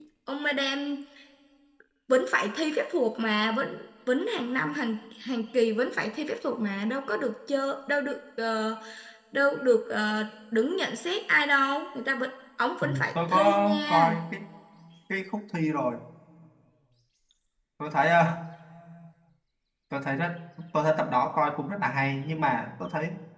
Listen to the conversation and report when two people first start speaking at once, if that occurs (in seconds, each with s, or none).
12.8 s